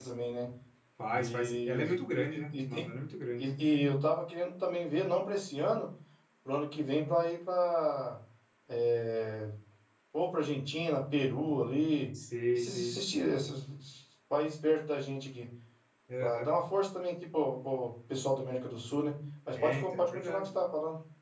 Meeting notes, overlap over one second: present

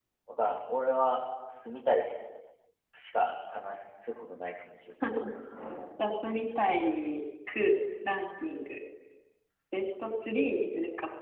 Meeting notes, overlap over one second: none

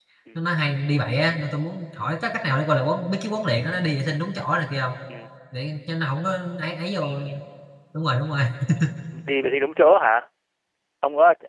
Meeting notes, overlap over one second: none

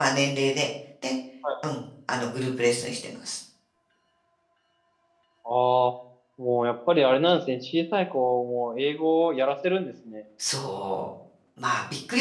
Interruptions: none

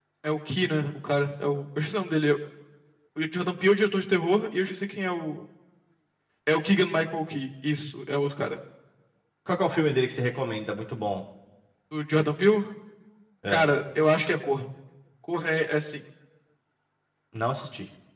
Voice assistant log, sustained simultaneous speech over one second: none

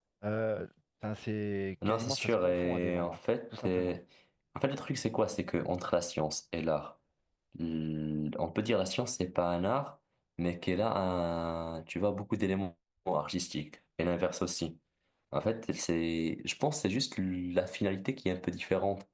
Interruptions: present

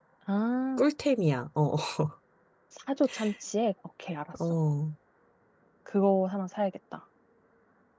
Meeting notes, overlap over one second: none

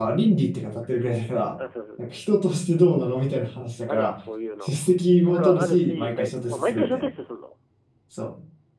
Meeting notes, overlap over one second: present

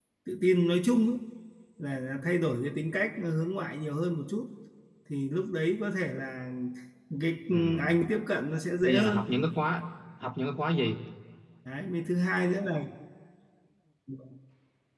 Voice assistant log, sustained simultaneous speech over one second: none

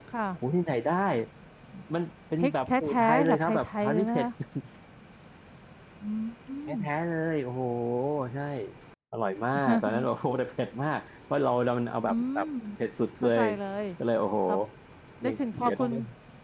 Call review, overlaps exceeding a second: present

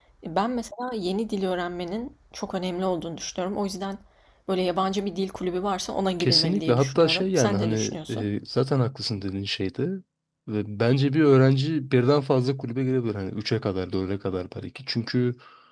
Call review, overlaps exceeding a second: present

